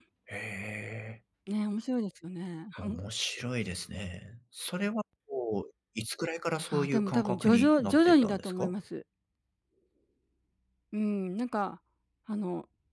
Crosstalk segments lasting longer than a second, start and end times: 6.7-8.7

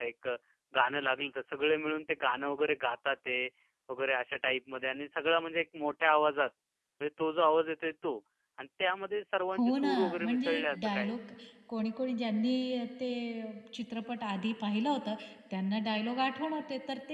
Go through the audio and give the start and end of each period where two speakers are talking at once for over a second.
9.6-11.2

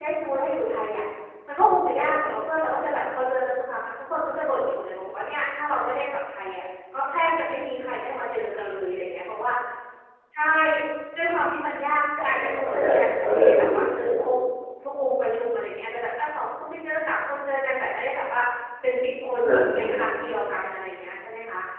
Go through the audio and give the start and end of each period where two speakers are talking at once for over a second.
12.3-14.3

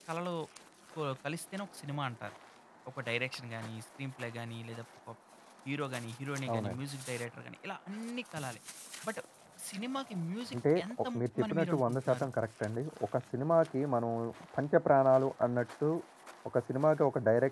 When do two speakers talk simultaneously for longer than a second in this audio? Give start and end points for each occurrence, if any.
10.5-12.3

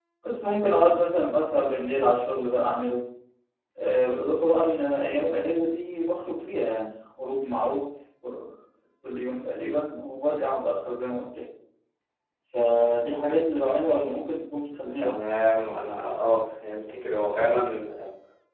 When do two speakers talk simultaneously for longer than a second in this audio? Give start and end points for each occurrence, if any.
none

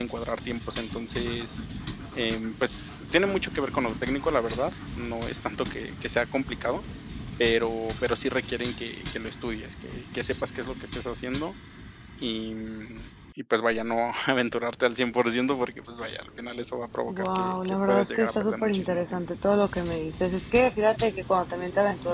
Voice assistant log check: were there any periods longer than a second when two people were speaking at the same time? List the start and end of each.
17.1-19.2

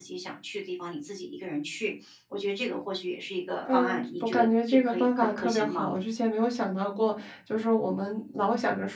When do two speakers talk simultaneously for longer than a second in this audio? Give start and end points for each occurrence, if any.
3.7-5.9

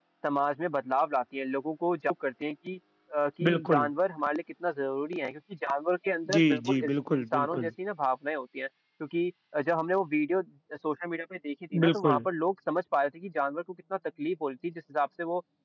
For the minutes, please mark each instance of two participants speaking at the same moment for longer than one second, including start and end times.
6.3-7.7

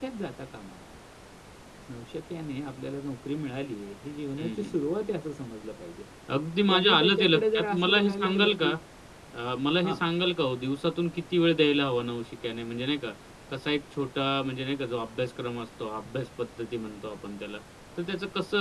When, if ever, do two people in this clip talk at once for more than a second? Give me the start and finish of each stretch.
6.7-8.8

